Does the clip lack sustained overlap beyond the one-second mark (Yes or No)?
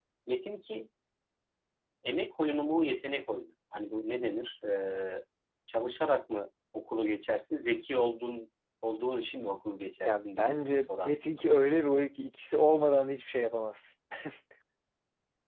No